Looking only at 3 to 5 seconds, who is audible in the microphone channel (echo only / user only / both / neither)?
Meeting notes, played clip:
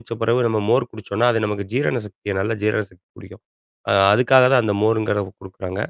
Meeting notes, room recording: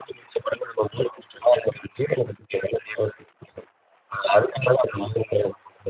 echo only